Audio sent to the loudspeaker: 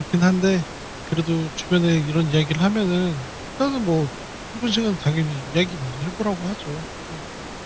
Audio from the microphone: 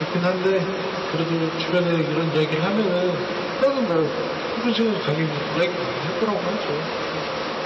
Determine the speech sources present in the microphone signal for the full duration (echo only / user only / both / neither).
echo only